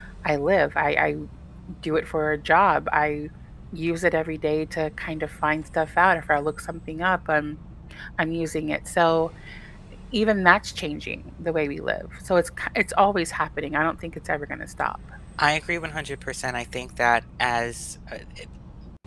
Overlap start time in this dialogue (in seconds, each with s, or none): none